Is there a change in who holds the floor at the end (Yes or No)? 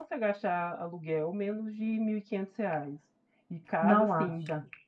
No